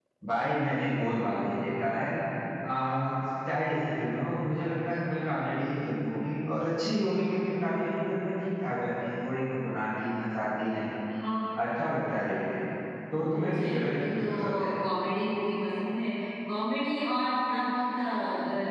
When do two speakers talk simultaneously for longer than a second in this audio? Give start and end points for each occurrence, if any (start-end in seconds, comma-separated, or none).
13.3-14.8